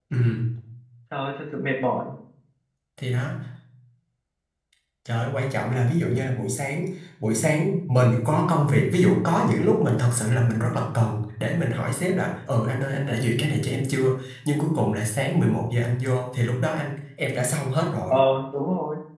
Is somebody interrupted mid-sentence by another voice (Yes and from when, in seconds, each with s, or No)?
No